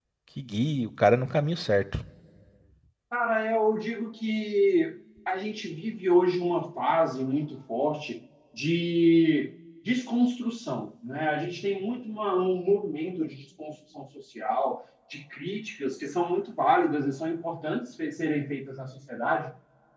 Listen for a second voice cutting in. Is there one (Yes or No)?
No